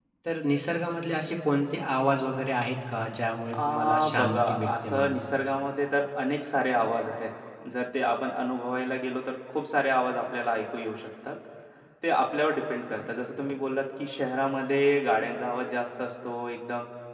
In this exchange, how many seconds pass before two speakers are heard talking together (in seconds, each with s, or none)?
3.5 s